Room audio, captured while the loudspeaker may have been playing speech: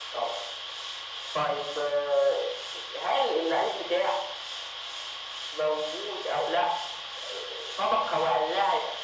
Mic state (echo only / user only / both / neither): echo only